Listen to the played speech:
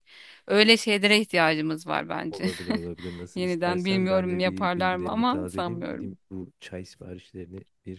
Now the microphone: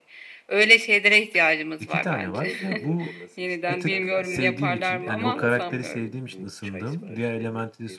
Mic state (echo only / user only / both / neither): both